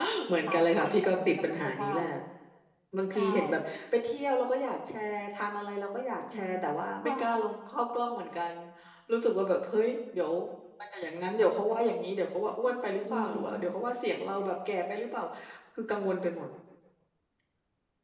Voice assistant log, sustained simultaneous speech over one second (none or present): present